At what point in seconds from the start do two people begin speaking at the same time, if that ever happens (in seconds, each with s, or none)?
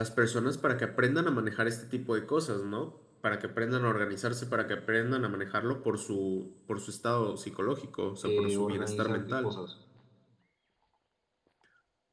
8.2 s